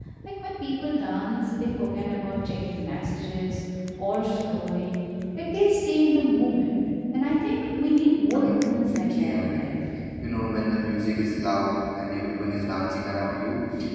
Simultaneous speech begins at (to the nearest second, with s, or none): 8 s